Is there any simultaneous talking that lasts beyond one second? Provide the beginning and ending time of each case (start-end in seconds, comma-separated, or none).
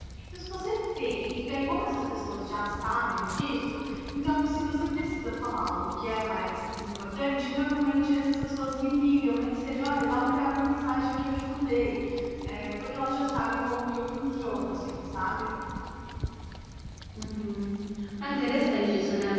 none